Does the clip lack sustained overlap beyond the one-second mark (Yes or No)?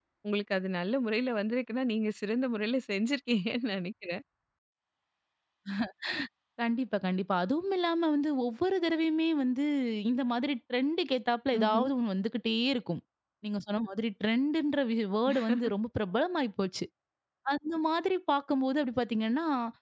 Yes